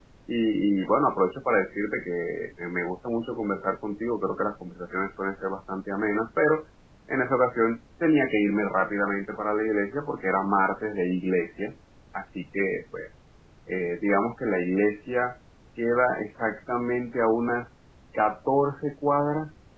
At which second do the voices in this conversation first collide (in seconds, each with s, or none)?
none